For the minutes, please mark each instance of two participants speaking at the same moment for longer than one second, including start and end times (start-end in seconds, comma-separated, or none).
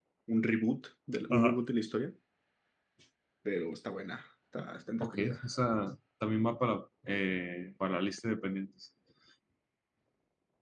none